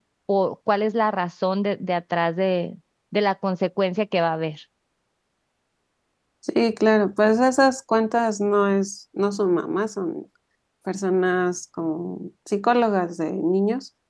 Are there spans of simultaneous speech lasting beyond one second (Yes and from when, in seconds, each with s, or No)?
No